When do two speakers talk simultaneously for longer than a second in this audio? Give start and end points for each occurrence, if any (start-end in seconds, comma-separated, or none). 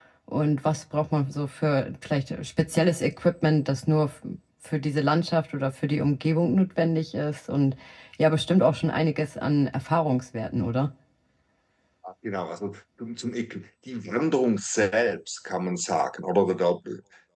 none